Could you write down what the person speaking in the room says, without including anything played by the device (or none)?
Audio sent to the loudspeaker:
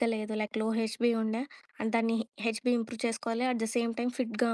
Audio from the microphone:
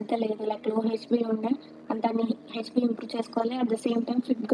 none